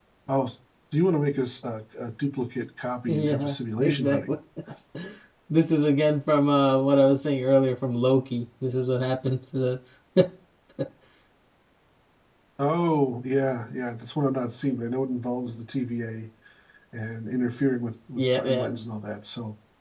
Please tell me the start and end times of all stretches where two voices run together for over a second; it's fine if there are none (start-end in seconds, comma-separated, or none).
3.1-4.3